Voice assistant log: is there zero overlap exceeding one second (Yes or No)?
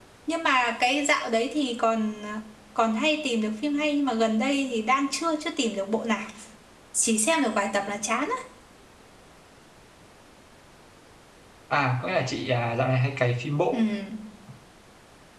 Yes